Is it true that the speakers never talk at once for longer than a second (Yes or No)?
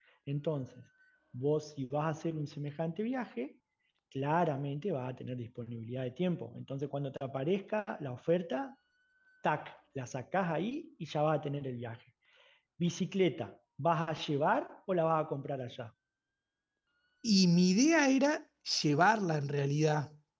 Yes